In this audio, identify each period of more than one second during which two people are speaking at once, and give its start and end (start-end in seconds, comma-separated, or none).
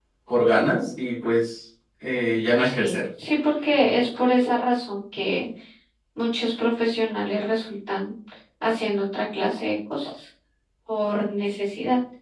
none